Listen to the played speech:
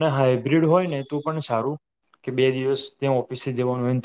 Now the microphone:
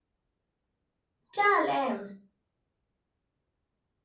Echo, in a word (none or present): none